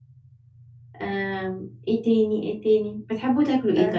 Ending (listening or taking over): listening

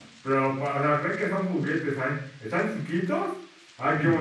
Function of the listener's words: listening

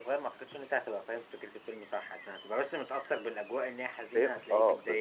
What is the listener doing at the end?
taking over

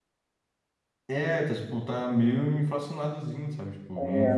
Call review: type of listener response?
taking over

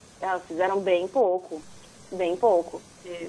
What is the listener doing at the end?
taking over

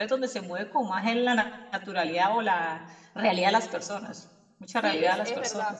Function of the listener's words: taking over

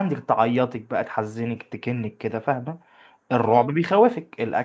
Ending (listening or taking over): listening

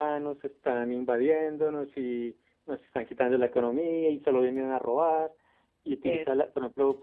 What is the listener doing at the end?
listening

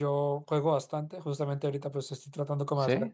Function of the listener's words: listening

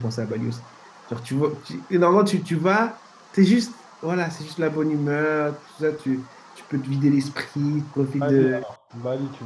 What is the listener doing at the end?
taking over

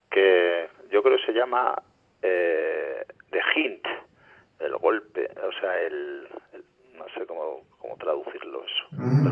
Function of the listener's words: taking over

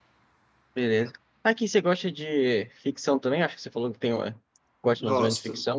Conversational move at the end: taking over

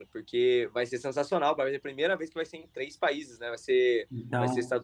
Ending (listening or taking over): listening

